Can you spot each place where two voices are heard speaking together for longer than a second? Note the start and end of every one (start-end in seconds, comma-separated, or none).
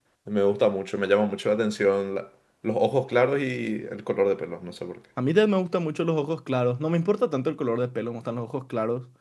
none